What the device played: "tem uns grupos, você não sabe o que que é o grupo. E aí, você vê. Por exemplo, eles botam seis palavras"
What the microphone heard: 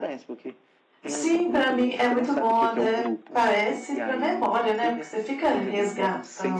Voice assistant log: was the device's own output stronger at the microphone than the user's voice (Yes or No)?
No